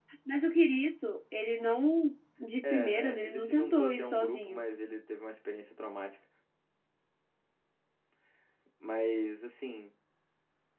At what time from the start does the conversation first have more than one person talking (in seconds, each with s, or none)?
2.6 s